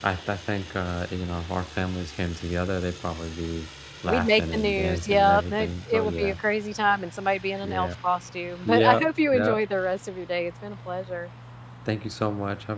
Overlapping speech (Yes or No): Yes